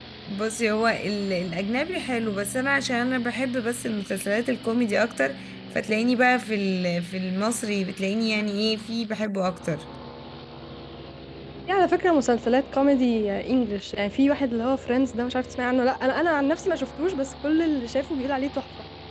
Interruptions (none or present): none